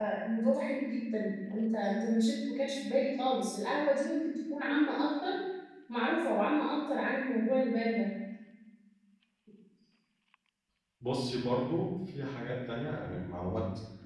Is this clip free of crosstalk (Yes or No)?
Yes